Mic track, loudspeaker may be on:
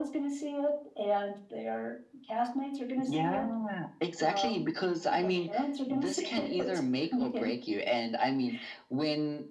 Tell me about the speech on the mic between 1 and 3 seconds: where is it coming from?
echo only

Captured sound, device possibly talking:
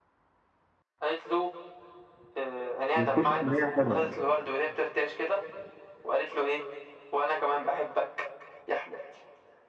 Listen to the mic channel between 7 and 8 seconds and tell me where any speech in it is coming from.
echo only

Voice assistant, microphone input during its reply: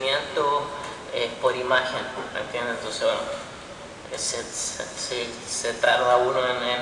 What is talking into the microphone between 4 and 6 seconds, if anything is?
echo only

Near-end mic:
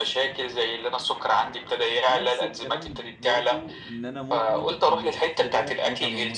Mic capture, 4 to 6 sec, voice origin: both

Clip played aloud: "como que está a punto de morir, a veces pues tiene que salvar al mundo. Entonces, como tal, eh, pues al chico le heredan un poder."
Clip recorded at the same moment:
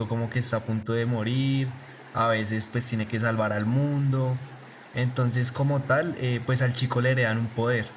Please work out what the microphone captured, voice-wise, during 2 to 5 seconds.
echo only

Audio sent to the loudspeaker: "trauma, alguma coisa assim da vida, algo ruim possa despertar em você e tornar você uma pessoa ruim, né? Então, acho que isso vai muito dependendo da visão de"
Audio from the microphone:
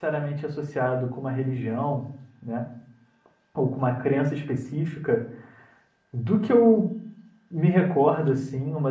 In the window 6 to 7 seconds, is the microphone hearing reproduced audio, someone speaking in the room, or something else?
user only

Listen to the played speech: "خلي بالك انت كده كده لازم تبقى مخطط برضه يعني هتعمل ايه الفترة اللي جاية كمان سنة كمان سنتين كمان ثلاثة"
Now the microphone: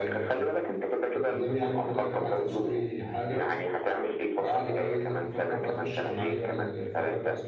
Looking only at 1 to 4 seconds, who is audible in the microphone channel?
both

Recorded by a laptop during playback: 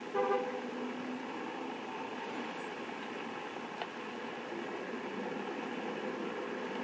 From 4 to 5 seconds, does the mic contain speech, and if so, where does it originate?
neither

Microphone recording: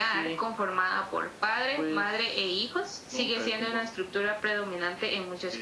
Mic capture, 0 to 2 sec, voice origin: echo only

